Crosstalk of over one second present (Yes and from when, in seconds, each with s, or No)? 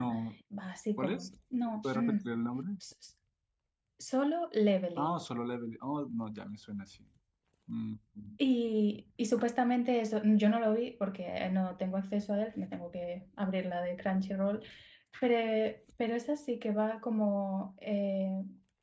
No